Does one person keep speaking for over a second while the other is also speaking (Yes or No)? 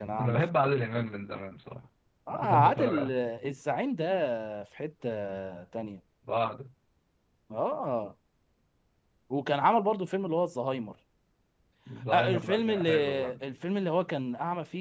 Yes